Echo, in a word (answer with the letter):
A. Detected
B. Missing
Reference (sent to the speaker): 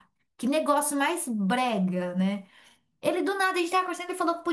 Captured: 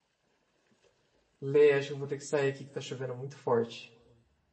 B